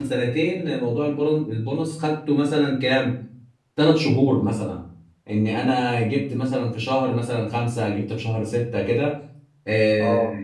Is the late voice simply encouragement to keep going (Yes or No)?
Yes